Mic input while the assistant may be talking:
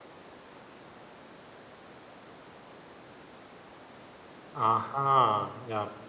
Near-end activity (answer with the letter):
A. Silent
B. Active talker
B